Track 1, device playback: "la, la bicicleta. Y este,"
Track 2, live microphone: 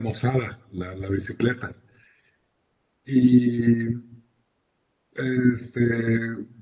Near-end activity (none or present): none